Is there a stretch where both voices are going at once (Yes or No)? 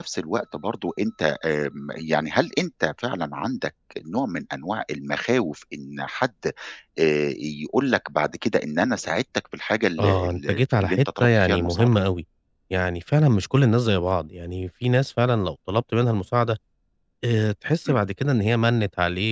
Yes